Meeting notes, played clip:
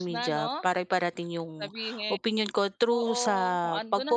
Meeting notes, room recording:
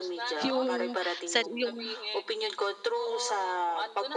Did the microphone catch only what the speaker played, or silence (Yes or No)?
No